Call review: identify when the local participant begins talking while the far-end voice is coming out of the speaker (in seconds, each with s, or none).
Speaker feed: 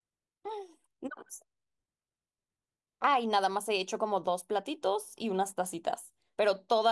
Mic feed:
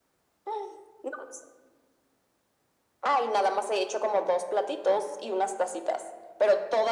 none